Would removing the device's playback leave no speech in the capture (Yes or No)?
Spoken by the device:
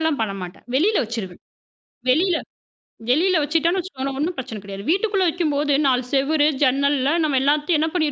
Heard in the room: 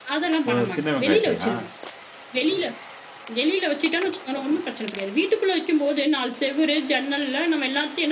No